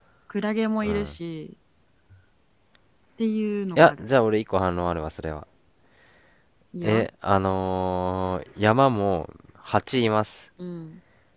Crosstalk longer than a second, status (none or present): none